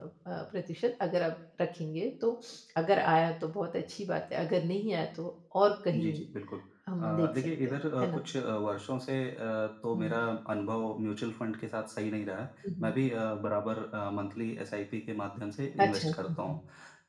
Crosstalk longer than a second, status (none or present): present